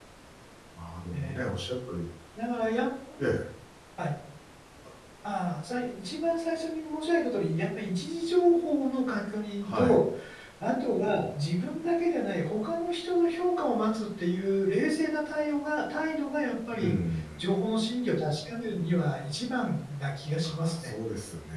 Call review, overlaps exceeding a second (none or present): none